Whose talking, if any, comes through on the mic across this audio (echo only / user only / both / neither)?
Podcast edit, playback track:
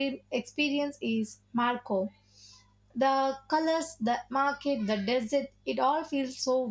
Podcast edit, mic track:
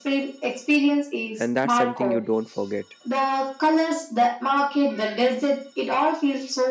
both